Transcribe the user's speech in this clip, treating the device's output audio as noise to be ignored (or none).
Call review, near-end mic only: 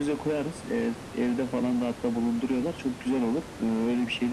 none